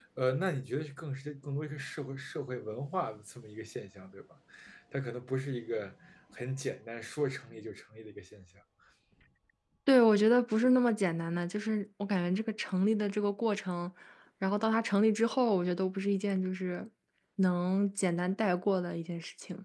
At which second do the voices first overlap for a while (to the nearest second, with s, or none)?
none